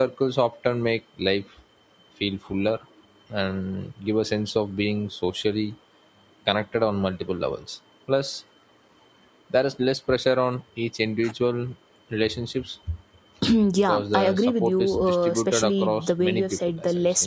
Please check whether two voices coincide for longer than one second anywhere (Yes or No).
Yes